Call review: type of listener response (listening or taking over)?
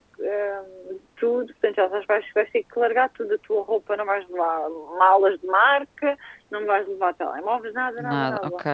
listening